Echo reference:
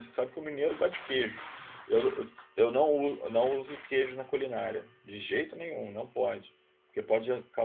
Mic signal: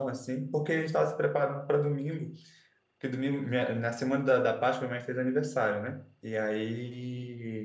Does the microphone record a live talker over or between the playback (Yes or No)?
Yes